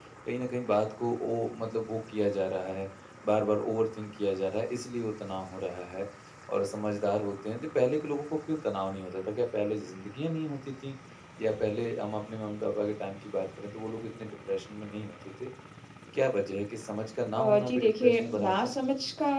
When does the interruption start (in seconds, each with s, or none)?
17.4 s